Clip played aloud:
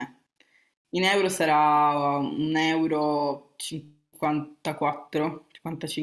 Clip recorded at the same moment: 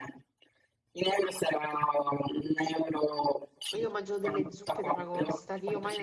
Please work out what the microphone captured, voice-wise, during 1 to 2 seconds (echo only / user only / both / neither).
echo only